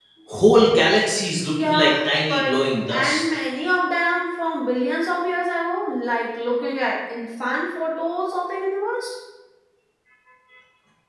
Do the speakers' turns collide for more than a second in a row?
Yes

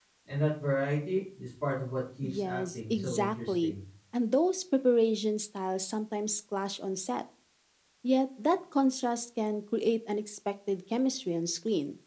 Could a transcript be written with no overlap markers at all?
No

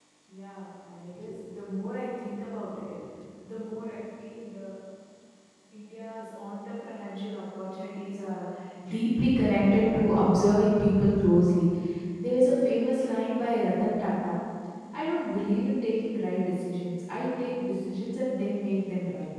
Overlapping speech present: No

